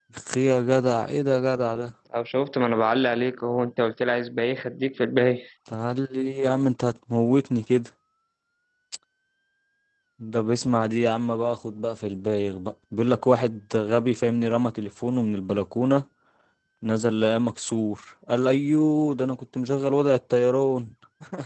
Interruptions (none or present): none